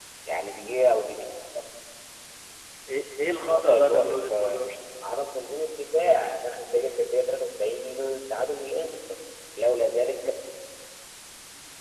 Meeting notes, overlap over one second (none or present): present